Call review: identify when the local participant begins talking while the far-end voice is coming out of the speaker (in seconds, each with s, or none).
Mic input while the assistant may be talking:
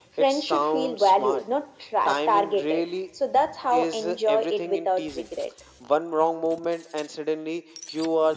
none